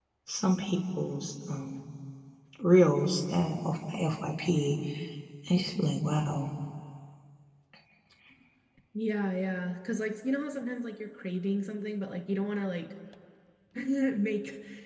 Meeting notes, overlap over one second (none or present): none